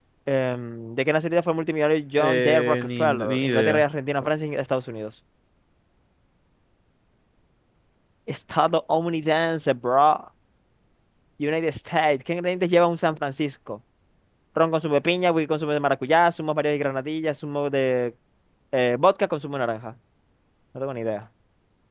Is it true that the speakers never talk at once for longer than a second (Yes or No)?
No